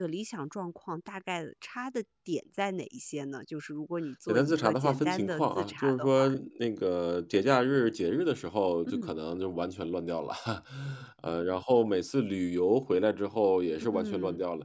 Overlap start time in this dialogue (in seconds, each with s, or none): 4.3 s